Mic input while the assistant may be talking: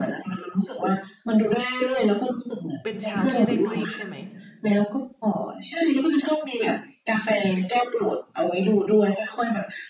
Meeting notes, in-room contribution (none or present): present